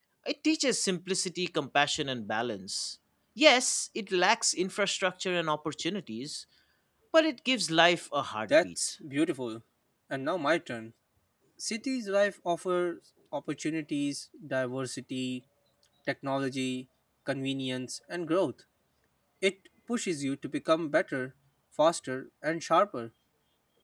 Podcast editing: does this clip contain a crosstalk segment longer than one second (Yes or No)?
No